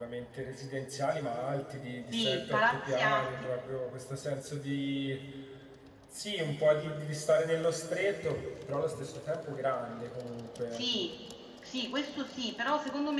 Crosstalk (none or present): present